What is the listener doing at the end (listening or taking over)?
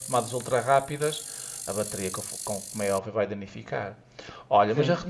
listening